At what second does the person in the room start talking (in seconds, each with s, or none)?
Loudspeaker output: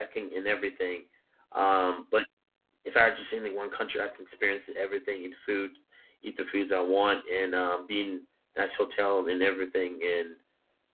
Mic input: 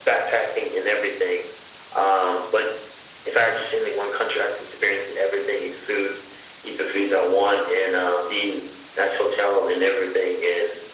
none